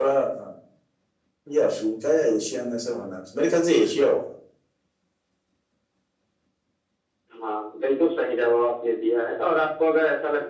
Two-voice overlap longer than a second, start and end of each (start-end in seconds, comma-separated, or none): none